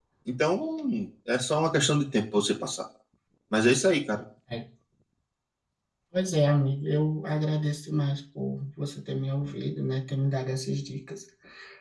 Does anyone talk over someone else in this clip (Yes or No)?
No